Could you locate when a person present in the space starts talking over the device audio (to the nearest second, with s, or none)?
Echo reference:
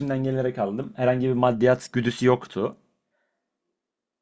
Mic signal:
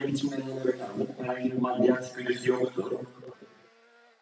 none